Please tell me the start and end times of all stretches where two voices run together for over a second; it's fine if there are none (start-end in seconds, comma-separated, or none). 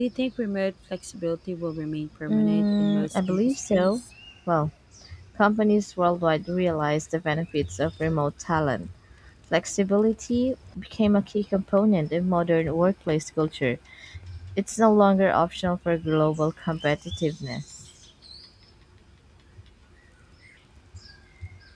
2.3-4.0